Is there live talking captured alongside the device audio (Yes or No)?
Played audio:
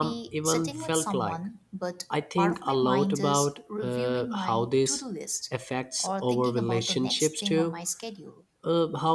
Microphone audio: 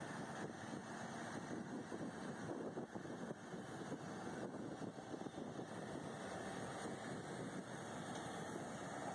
No